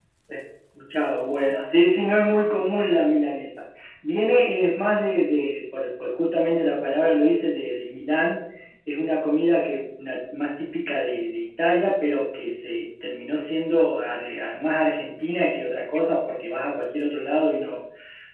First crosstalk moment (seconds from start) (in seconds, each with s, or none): none